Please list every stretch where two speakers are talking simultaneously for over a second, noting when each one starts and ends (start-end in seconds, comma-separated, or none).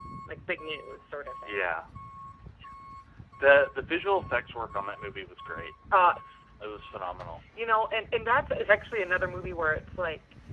none